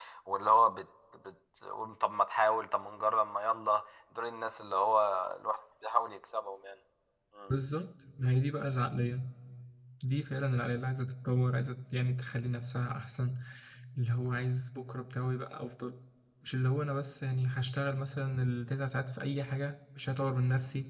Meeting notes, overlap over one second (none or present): none